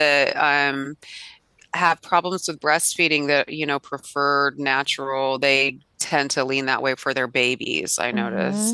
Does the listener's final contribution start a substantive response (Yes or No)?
Yes